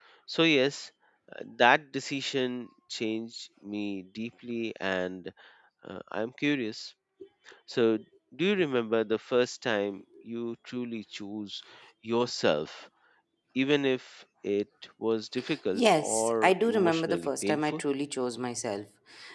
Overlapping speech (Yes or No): Yes